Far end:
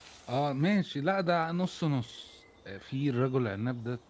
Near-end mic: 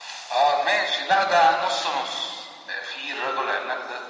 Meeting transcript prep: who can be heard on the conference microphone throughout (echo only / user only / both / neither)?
echo only